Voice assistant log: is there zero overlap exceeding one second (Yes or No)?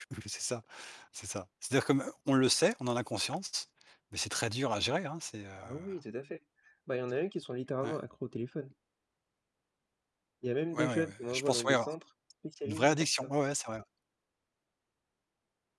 No